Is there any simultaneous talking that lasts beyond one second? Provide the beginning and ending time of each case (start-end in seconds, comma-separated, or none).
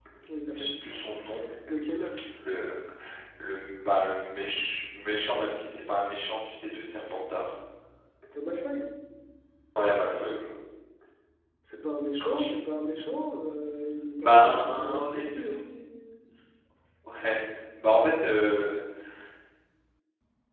14.2-15.7